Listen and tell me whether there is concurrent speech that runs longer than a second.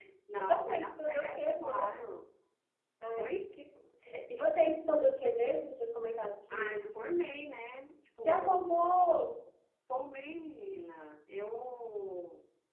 Yes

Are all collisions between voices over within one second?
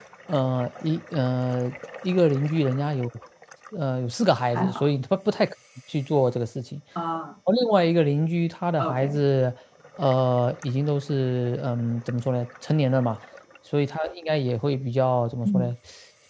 Yes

